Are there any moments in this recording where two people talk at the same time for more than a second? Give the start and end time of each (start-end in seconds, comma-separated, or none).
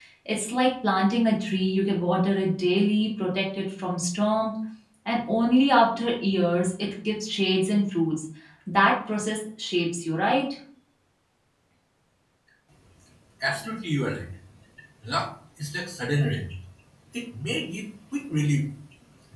none